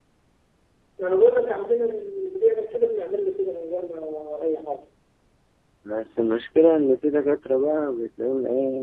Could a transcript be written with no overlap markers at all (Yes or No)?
Yes